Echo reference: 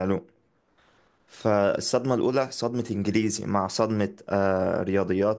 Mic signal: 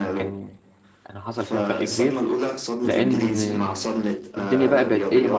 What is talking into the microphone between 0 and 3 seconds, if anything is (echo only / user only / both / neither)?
both